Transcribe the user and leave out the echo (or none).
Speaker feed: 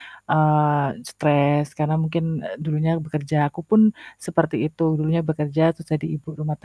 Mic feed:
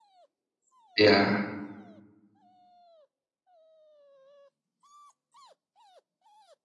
Iya.